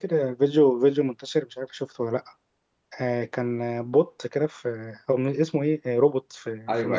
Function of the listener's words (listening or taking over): taking over